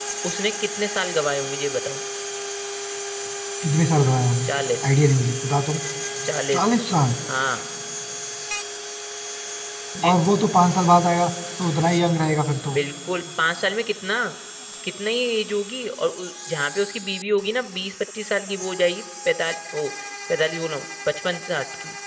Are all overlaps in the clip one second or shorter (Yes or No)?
Yes